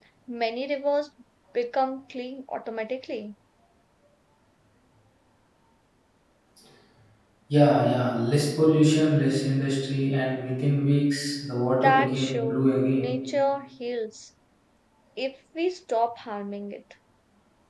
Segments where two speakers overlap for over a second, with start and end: 11.7-13.0

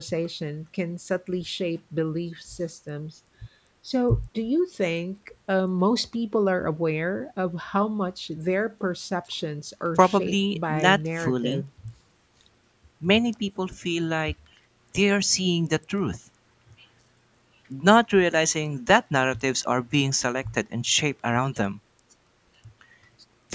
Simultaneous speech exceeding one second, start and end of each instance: 10.0-11.6

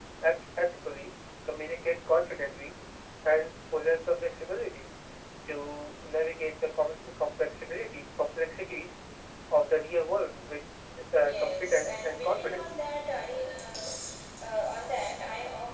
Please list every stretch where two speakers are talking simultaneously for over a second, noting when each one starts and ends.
11.1-12.8

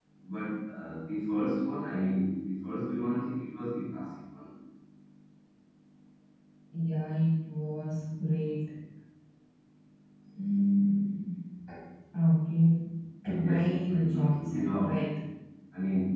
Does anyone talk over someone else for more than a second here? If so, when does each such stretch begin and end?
13.4-15.0

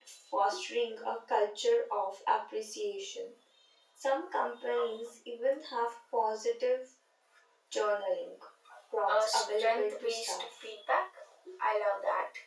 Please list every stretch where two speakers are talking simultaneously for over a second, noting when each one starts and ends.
9.1-10.4

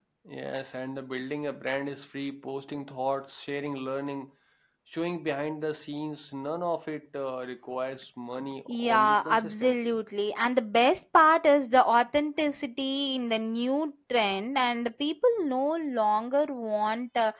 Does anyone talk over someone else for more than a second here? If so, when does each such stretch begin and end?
8.7-10.0

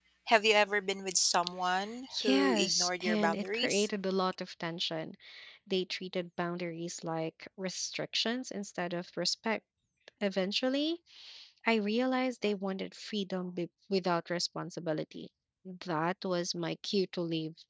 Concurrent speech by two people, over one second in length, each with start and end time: 2.2-3.9

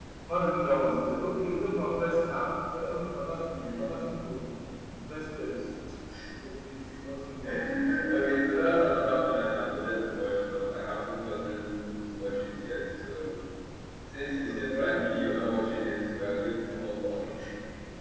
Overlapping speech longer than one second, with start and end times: none

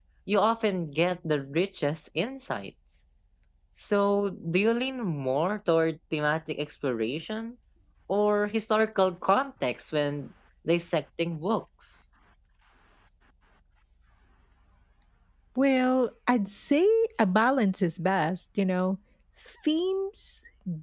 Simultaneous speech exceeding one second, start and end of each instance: none

